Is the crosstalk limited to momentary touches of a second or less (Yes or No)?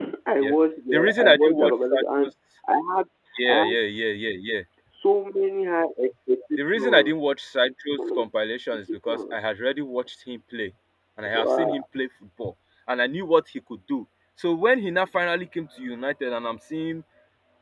No